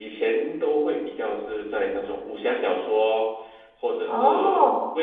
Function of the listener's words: listening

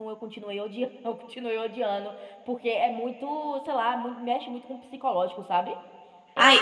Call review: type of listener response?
taking over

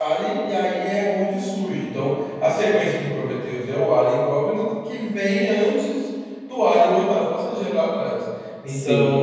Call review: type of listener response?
taking over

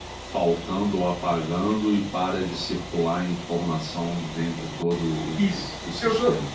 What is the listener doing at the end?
taking over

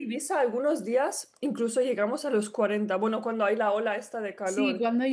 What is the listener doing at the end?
taking over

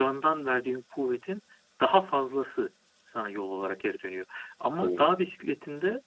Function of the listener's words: listening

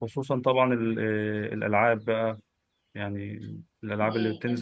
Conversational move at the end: listening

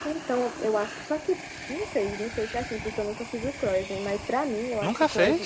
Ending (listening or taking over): listening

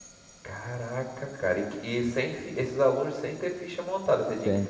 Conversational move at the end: taking over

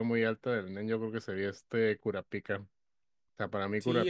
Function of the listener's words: taking over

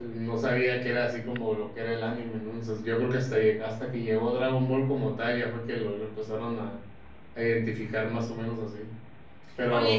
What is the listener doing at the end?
taking over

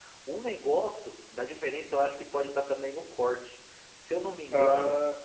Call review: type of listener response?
listening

